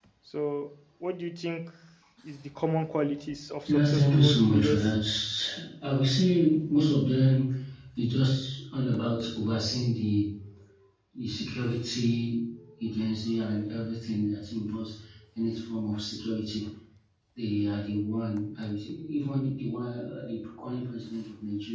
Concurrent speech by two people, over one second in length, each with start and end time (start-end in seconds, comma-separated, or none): 3.6-4.9